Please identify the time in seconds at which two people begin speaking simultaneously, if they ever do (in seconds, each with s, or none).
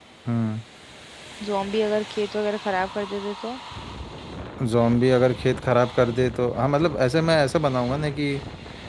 none